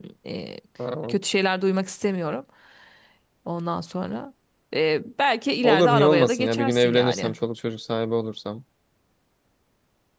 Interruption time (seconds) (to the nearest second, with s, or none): 6 s